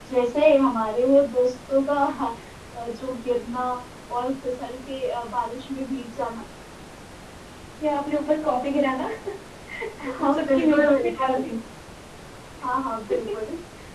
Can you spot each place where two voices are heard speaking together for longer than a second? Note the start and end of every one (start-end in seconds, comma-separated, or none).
10.2-11.5